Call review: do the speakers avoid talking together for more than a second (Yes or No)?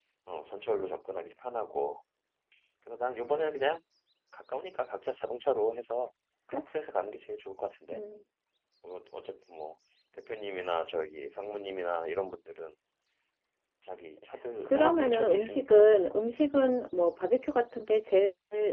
No